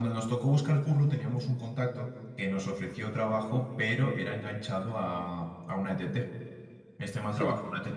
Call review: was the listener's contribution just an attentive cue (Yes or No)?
Yes